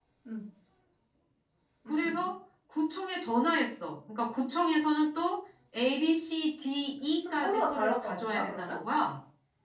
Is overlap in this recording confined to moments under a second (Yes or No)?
No